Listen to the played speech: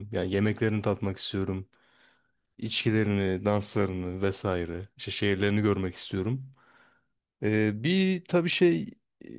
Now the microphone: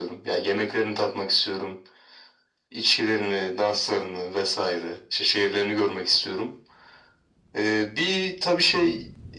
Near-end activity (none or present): none